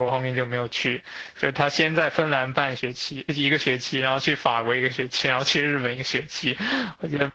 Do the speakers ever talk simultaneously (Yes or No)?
No